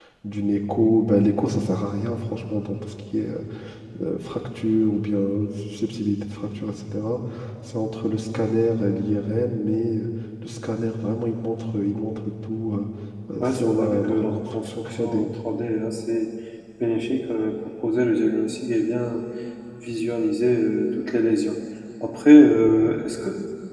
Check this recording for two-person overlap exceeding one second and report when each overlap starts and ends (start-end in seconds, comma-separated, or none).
13.4-15.2